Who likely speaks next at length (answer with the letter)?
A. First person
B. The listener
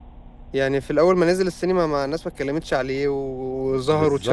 B